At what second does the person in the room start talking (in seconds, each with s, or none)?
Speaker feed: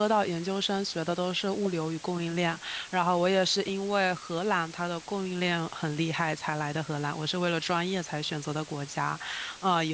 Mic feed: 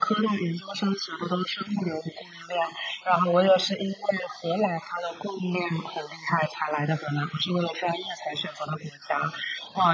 none